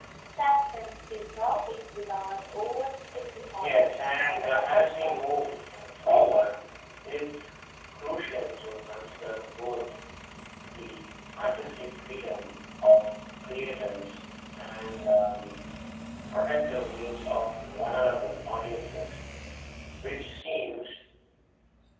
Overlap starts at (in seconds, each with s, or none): 3.5 s